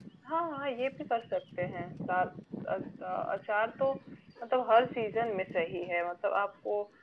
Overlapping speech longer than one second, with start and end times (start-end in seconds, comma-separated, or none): none